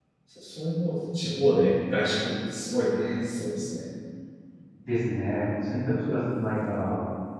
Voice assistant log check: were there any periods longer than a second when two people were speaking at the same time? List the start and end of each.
none

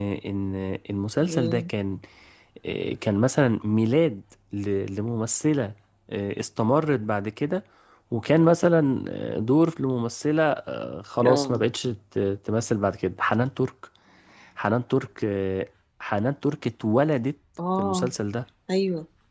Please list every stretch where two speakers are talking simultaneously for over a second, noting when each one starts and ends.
none

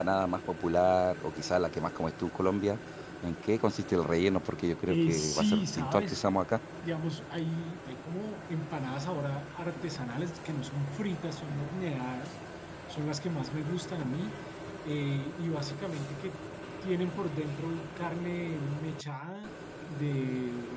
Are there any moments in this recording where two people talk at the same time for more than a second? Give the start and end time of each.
4.8-6.2

